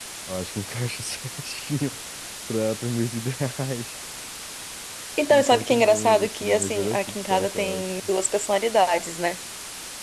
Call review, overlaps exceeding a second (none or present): present